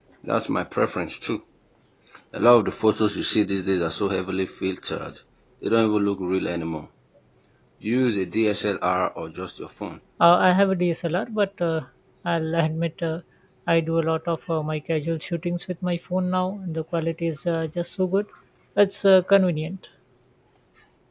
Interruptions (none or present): none